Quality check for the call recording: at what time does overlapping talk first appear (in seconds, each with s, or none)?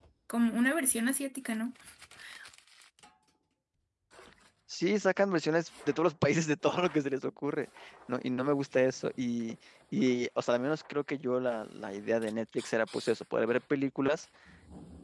none